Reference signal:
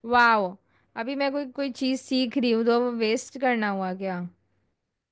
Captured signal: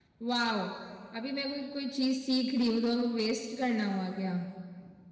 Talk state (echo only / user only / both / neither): echo only